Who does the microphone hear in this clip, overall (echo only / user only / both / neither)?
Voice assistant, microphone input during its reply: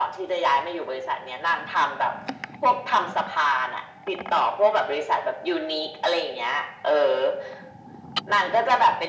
echo only